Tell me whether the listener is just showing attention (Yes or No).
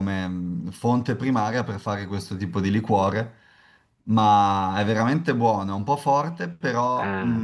Yes